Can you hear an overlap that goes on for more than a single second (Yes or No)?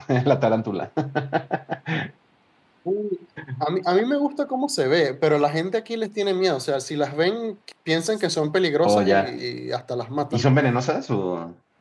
No